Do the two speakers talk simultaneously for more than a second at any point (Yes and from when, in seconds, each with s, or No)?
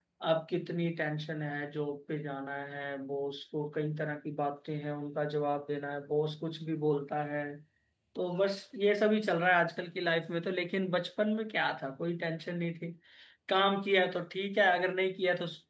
No